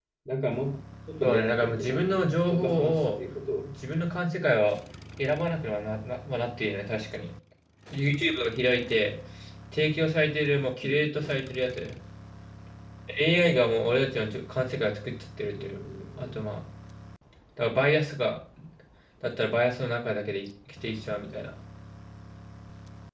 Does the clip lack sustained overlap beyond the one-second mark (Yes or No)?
No